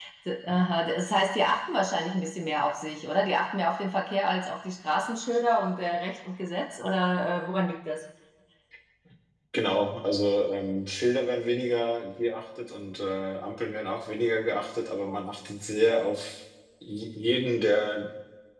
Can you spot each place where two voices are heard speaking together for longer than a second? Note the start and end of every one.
none

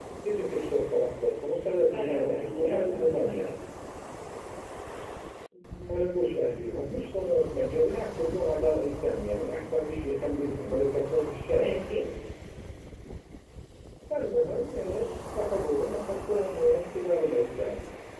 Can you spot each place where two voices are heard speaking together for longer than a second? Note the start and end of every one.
1.8-3.5

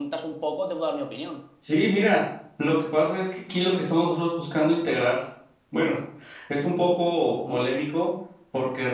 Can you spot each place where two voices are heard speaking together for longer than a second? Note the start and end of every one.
none

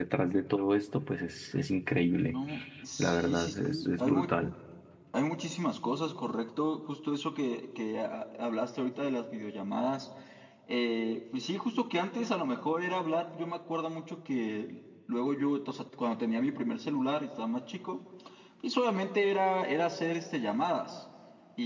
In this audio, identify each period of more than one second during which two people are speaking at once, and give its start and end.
3.0-4.3

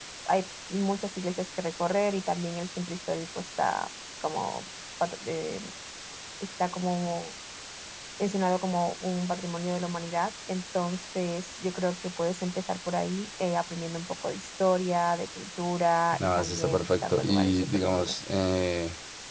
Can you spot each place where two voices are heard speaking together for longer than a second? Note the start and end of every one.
16.1-18.1

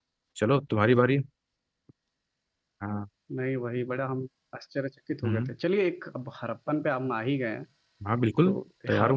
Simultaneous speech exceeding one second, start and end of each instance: none

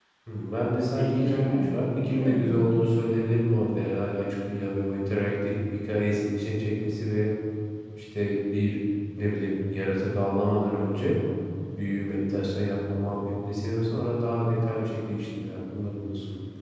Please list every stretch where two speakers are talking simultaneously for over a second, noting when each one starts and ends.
0.9-2.8

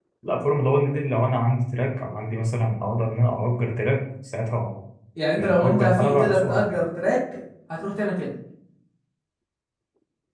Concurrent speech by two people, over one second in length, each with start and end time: 5.4-6.8

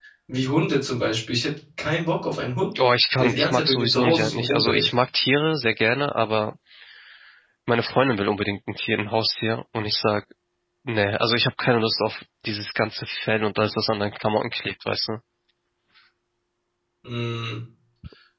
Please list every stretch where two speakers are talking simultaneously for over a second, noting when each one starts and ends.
3.2-4.9

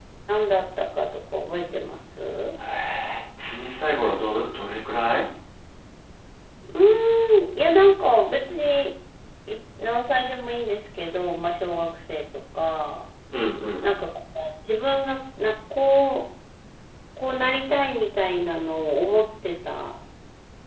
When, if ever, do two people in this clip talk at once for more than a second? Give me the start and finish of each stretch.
none

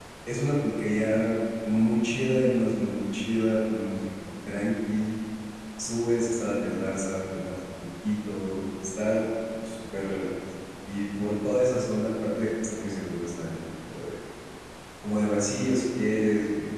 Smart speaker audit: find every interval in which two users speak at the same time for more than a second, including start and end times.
none

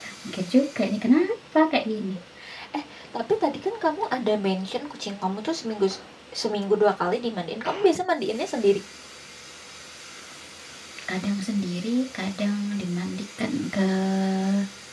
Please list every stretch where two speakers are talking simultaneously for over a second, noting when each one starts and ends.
none

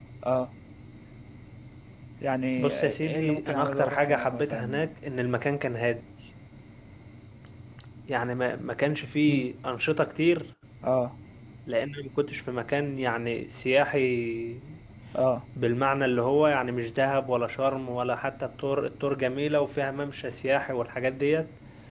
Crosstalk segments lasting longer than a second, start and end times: 2.6-4.8

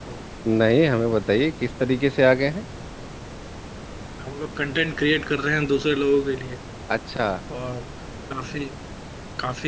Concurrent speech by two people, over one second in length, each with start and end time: none

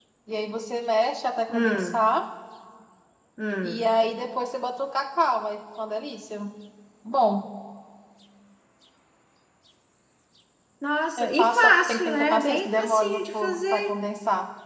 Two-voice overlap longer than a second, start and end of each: 11.2-13.9

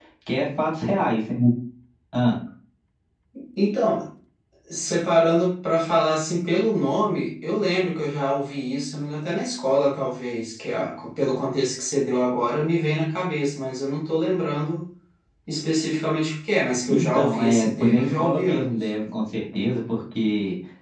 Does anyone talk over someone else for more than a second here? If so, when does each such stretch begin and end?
16.9-18.7

